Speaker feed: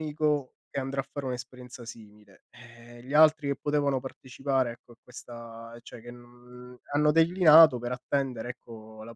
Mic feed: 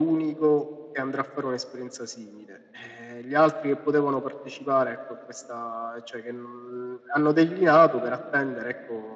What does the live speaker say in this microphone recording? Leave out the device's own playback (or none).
none